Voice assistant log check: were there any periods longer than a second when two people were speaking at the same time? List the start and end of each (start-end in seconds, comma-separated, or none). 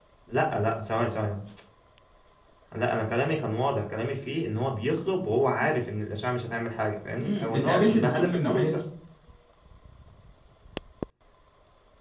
7.2-8.9